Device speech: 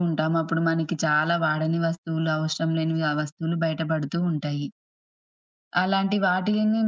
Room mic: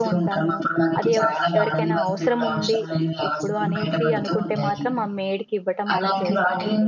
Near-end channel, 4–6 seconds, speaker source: both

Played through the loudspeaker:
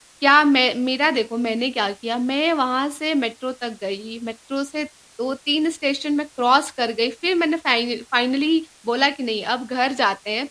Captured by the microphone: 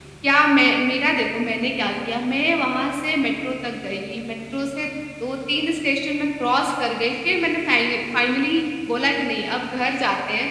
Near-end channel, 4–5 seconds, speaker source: echo only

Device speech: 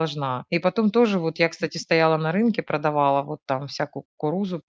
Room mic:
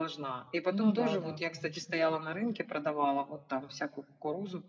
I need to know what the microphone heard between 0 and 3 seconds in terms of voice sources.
both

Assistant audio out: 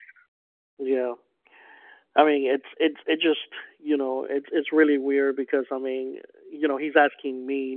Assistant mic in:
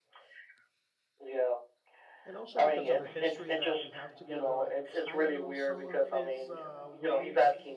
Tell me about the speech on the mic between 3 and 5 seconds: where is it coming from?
both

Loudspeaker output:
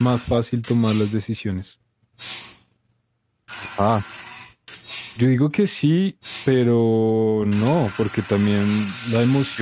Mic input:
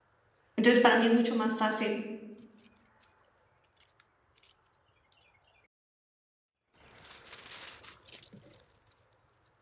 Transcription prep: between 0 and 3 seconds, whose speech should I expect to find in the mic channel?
user only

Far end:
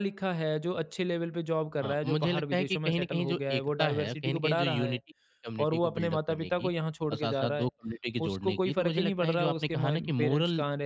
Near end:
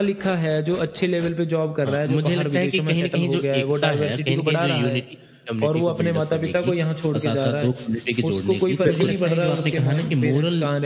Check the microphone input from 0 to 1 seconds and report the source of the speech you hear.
echo only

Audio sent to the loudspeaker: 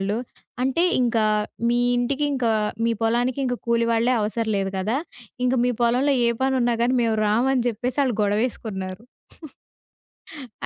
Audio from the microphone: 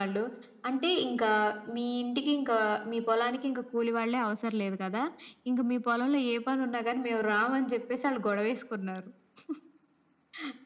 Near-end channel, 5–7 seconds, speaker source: echo only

